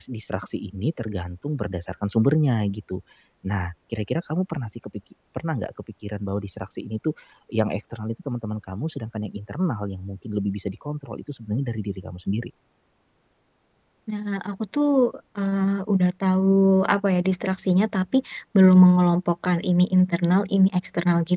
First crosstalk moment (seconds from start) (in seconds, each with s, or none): none